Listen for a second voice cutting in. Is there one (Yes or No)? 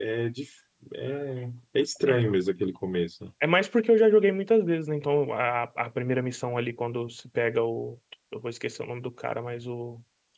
No